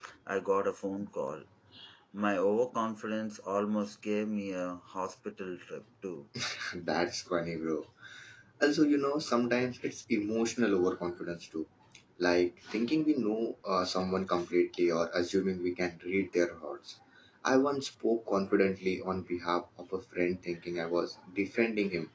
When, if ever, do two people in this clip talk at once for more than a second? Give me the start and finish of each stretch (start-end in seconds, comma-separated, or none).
none